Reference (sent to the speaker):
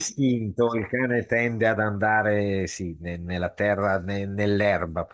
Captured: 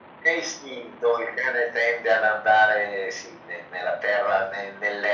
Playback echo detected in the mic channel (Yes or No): Yes